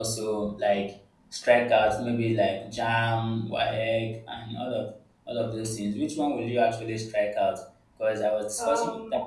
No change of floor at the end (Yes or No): Yes